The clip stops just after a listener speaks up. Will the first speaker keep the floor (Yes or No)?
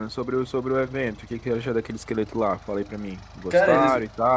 Yes